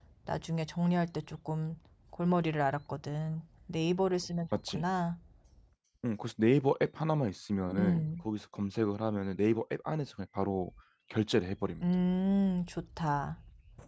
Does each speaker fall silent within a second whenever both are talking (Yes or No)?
Yes